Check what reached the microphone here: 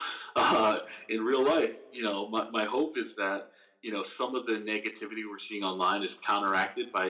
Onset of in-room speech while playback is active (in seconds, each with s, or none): none